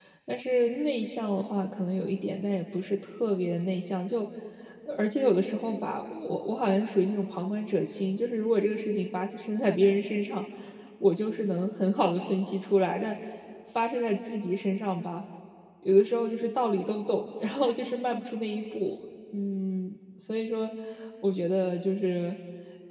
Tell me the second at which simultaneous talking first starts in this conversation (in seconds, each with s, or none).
none